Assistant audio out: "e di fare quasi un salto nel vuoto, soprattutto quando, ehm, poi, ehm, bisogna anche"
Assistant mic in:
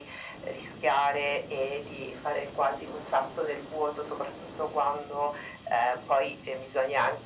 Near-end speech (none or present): none